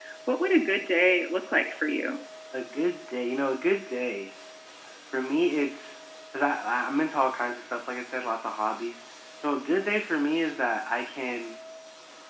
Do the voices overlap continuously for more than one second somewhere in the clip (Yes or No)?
No